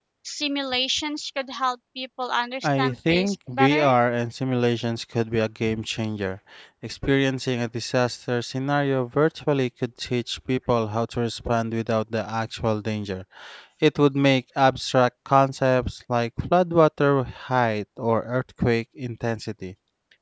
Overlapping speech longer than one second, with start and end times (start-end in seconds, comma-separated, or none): 2.6-3.9